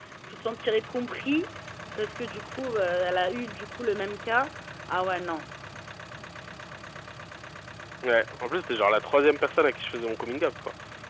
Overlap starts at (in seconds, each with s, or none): none